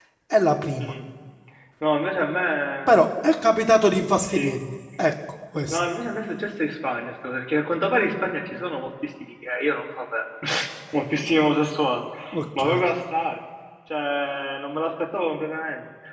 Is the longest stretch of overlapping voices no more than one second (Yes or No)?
Yes